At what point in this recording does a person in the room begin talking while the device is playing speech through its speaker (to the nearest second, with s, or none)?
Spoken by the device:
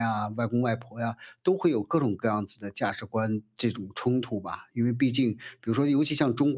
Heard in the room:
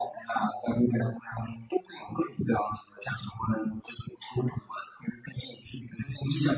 none